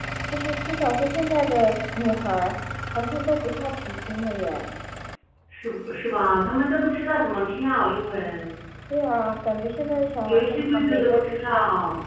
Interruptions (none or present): present